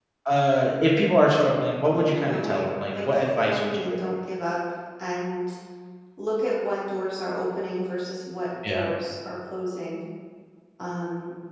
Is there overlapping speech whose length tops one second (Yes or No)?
Yes